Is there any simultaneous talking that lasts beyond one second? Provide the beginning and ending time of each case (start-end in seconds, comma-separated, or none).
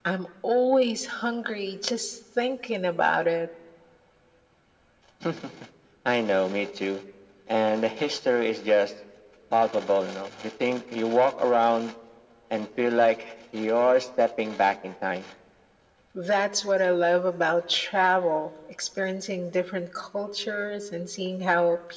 none